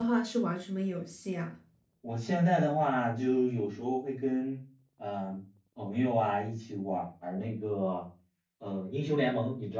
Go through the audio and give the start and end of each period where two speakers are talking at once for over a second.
none

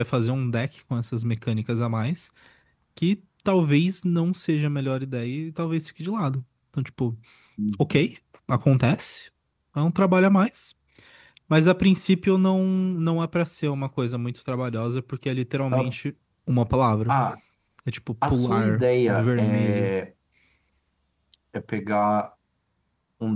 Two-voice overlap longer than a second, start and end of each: 18.3-19.9

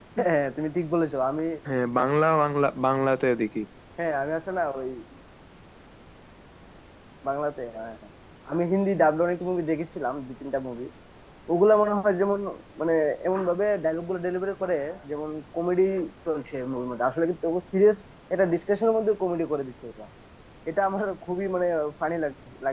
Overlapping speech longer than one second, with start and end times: none

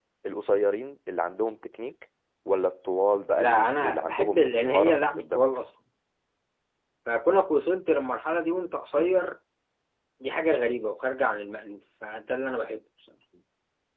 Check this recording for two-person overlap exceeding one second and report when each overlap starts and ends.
3.4-5.5

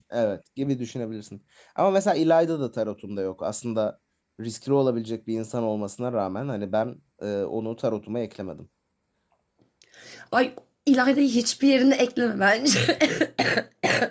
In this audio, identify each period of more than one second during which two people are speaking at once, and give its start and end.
none

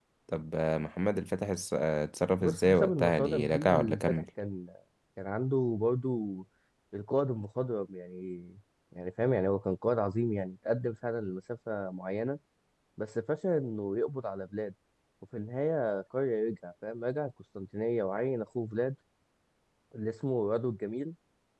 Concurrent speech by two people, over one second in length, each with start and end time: 2.4-4.2

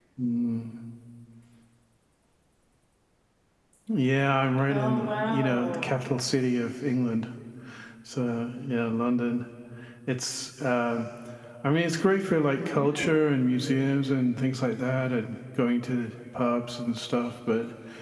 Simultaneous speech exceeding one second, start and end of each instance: 4.7-5.9

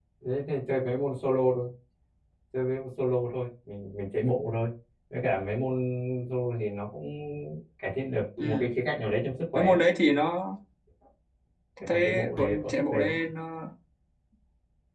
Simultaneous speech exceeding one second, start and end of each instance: 11.9-13.2

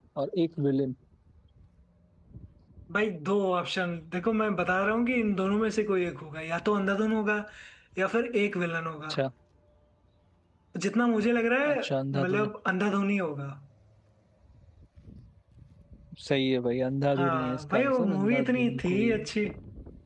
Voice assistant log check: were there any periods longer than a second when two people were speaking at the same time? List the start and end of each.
17.1-19.1

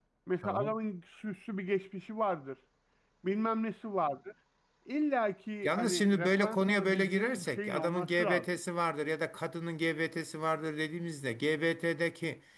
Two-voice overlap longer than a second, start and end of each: 5.6-8.6

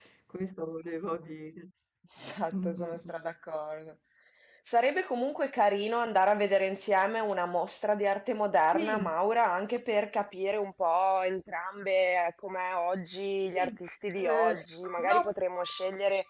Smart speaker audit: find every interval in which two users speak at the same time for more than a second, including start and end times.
none

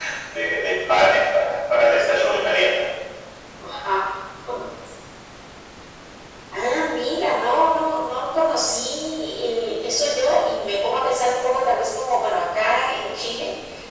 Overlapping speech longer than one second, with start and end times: none

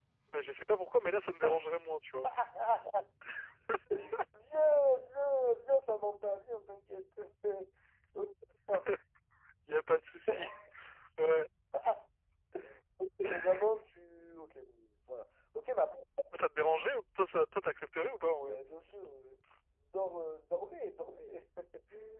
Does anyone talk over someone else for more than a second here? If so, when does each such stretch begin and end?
none

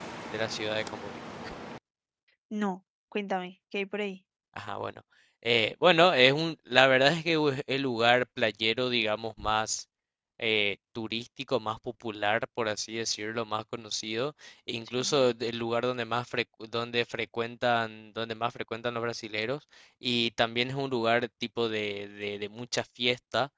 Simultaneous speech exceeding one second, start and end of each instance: none

